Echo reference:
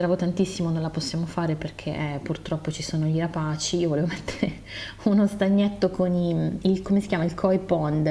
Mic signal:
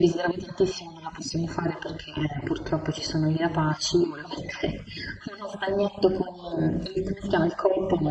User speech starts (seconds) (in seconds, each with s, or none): none